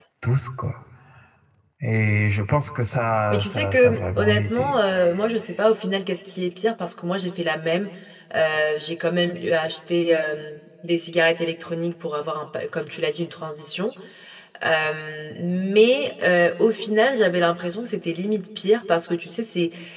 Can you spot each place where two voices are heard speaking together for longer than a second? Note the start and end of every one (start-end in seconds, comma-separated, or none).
3.3-4.8